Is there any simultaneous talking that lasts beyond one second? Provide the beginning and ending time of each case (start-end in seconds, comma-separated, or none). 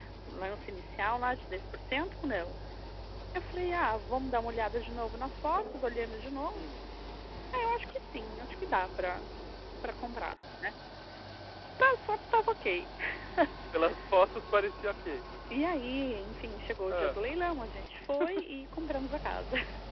none